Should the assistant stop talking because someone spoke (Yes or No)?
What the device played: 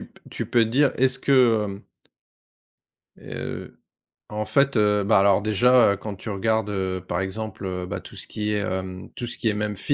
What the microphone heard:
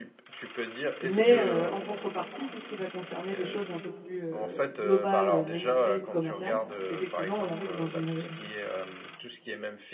Yes